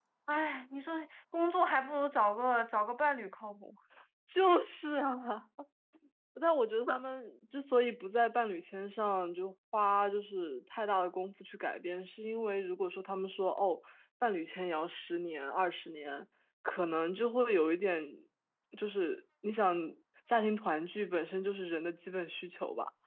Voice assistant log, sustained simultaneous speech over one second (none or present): none